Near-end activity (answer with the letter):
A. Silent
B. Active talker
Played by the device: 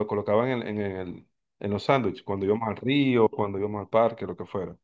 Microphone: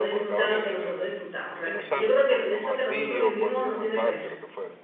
B